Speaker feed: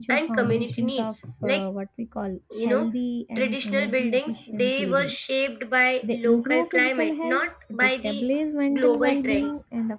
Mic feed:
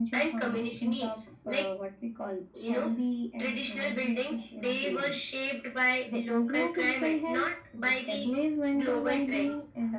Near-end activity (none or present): none